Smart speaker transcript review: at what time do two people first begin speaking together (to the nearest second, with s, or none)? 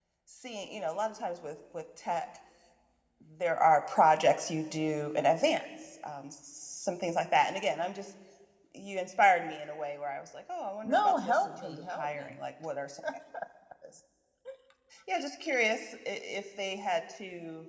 11 s